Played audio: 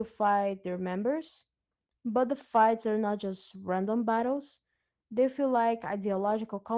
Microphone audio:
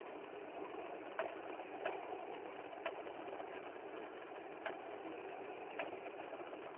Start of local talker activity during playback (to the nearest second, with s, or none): none